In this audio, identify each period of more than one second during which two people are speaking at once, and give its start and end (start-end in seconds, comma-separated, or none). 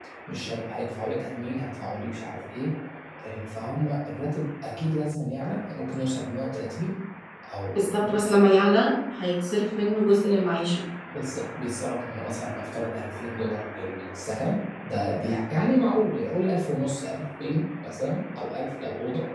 none